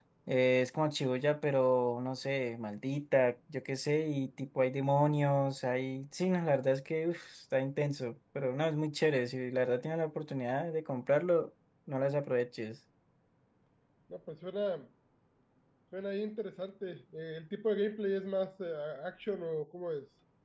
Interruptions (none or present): none